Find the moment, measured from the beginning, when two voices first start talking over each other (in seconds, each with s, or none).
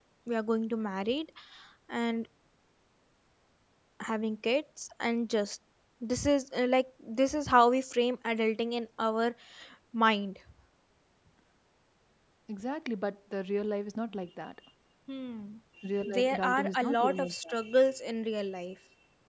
16.0 s